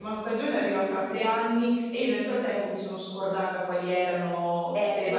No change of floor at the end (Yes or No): No